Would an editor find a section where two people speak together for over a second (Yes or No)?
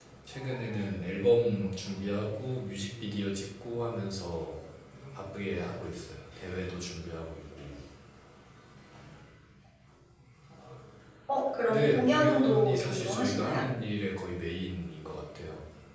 Yes